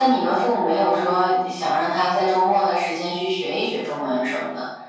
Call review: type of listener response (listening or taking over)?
taking over